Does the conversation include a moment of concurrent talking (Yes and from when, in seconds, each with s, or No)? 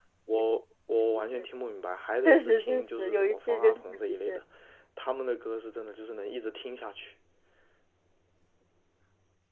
Yes, from 2.2 s